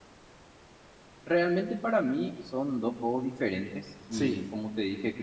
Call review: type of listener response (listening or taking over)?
listening